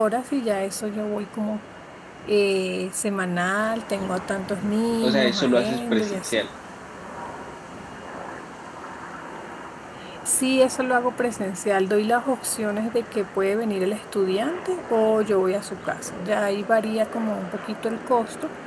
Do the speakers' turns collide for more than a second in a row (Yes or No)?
Yes